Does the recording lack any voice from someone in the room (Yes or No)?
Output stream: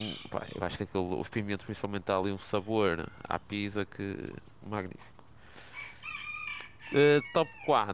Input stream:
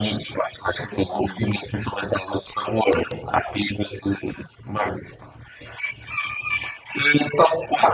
No